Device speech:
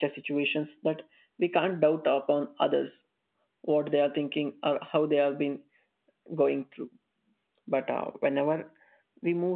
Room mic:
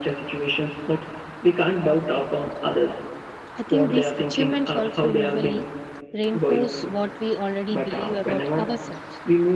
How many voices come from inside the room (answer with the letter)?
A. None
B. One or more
B